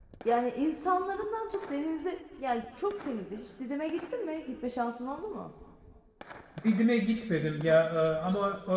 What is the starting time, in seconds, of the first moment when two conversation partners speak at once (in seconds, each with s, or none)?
none